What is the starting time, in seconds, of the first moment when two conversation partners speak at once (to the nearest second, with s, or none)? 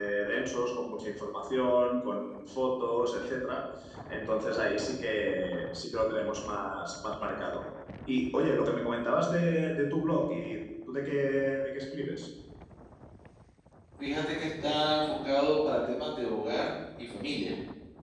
none